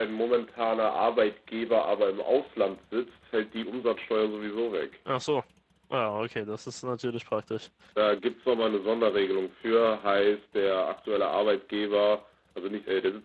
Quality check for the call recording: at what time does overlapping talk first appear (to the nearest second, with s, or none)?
none